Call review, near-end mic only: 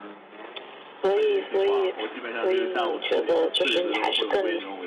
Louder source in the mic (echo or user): echo